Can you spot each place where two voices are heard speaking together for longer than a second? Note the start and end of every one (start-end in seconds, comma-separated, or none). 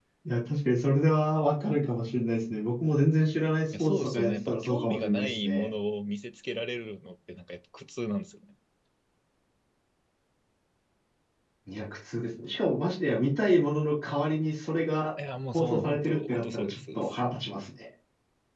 3.8-5.7, 15.5-17.0